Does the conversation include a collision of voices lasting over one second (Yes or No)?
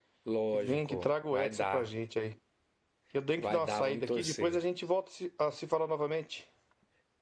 Yes